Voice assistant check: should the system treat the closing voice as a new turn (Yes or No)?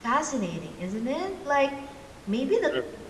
No